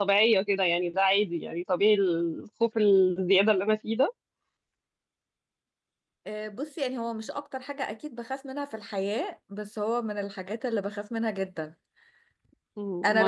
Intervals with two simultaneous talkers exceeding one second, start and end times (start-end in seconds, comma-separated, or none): none